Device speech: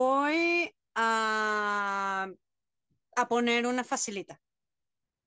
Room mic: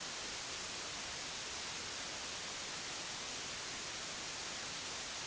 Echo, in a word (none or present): none